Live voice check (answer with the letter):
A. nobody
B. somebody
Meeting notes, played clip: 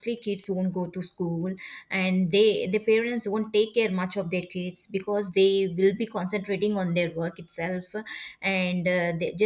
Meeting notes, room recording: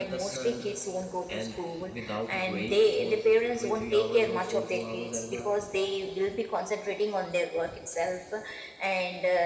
B